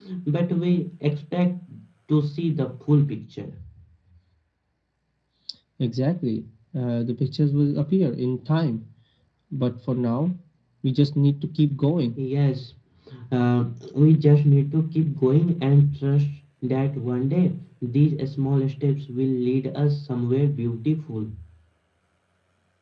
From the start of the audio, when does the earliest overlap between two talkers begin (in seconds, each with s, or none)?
none